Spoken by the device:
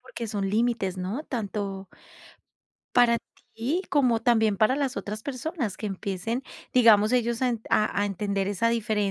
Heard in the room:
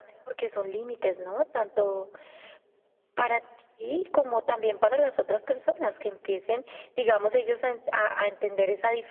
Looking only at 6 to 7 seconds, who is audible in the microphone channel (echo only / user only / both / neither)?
echo only